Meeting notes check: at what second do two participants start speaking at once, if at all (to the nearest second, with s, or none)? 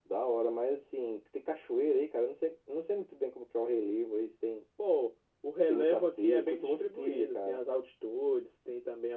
6 s